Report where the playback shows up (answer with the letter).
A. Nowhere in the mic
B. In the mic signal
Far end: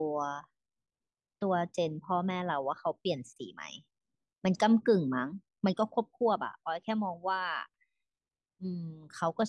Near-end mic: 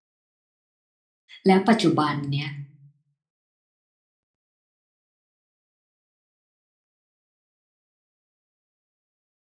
A